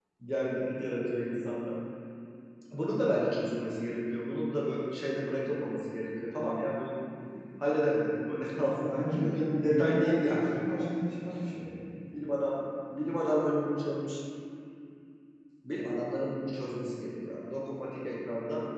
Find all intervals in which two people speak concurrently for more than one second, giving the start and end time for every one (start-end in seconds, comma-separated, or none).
8.8-10.4